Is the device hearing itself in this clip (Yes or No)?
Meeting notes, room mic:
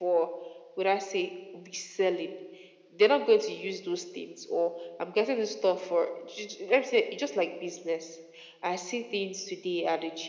Yes